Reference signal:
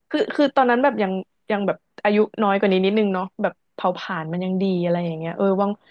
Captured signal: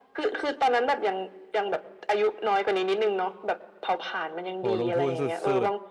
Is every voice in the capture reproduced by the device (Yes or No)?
No